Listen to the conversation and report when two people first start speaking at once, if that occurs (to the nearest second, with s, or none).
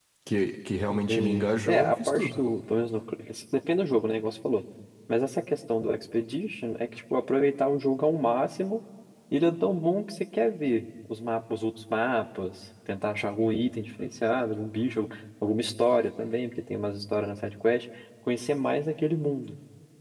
1 s